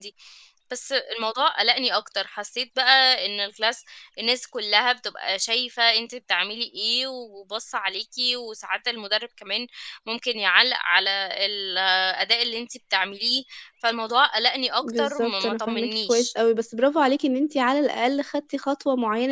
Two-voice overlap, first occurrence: 14.8 s

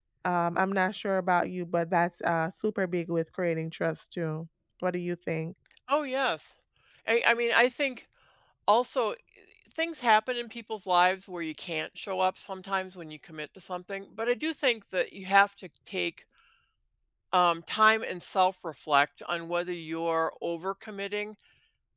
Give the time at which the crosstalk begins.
none

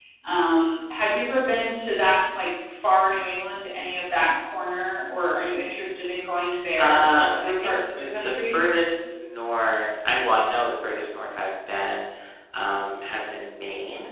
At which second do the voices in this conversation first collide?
6.8 s

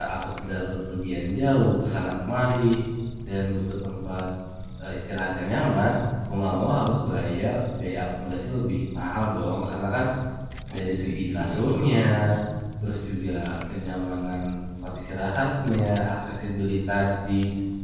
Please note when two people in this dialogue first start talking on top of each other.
10.7 s

